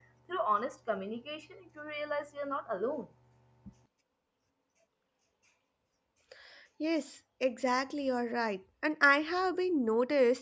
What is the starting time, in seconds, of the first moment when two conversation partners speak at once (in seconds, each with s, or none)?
none